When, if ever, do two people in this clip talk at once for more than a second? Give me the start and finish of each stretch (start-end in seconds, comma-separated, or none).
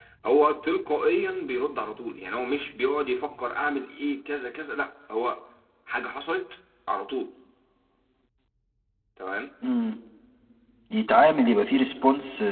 none